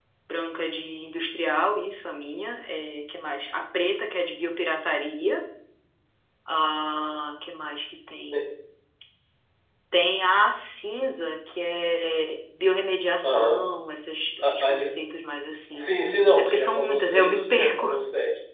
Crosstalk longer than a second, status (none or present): present